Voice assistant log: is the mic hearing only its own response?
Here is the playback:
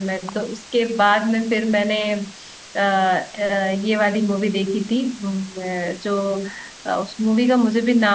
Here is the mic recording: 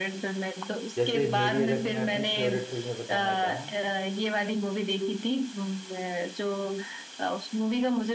No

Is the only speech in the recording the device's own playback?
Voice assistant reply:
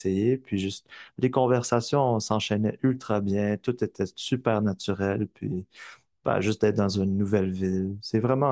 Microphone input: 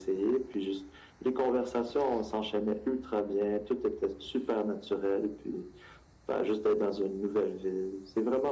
Yes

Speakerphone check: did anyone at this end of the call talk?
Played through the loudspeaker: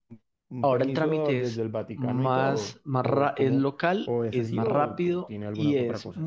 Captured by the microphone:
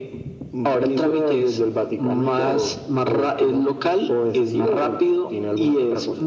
No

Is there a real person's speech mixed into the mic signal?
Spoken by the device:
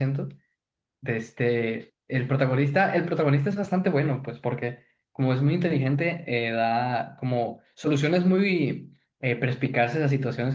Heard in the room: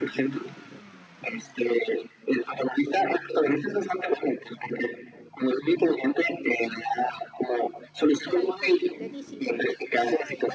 Yes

